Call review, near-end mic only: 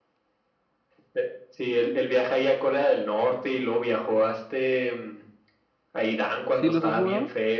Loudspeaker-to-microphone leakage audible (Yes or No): Yes